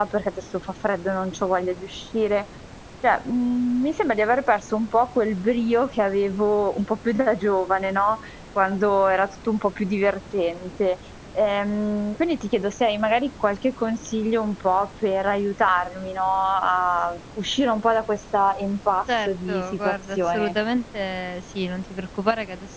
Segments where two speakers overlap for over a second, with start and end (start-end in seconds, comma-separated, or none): 19.3-20.5